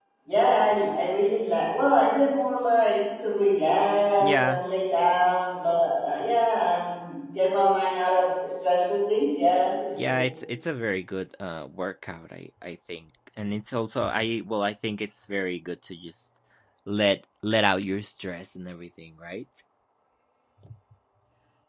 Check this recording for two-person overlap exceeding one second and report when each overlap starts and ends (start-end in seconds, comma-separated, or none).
none